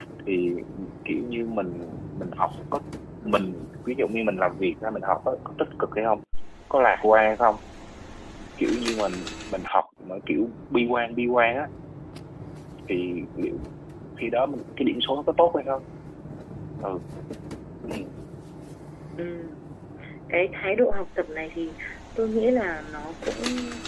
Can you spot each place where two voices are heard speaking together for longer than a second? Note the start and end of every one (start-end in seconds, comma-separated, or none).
none